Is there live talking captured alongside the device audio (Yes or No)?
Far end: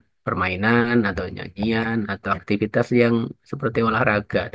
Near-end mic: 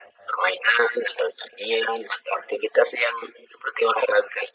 No